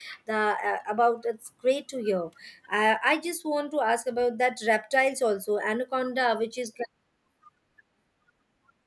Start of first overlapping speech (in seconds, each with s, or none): none